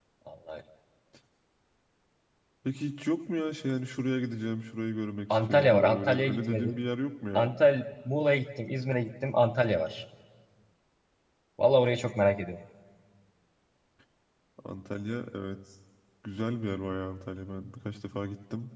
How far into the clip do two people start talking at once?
5.3 s

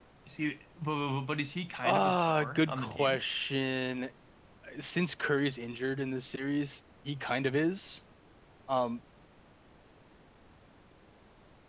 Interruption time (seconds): 1.8 s

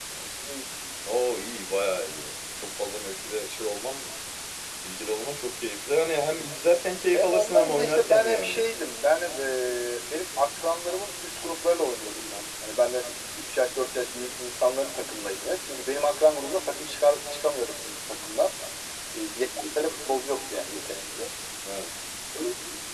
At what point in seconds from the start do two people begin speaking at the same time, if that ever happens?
7.1 s

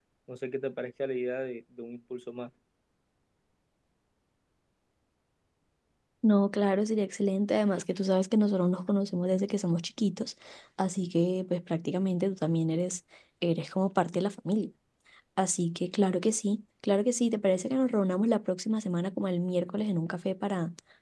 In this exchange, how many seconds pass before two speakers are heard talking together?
none

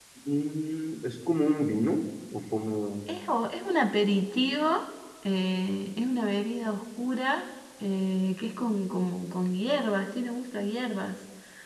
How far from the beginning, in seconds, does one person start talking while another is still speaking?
none

